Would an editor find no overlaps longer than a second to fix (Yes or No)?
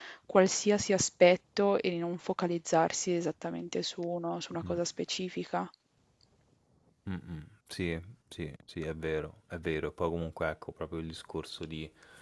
Yes